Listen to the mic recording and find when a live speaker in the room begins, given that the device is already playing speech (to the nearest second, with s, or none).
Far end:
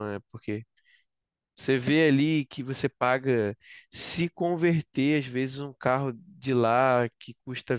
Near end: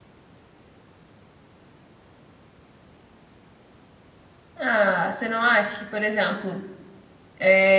5 s